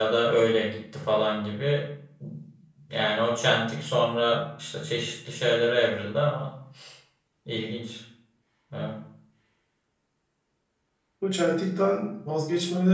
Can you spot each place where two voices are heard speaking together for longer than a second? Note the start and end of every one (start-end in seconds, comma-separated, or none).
none